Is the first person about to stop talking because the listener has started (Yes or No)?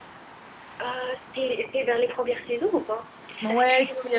Yes